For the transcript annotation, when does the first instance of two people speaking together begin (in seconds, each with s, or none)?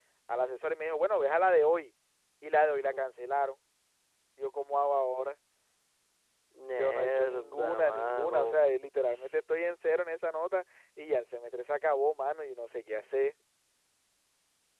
6.8 s